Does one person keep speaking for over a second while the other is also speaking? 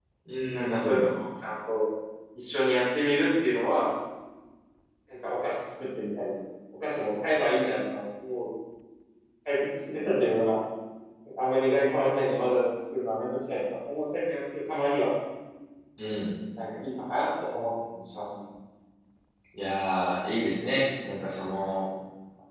No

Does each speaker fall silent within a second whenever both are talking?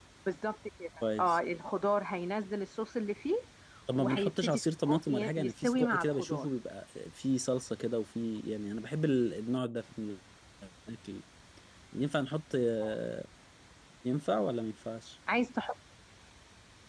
No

